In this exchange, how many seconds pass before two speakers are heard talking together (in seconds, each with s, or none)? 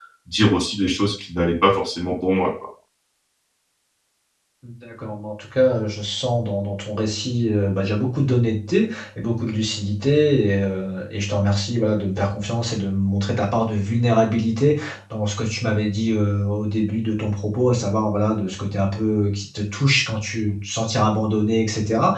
none